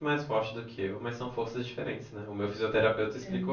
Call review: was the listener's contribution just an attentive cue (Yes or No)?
Yes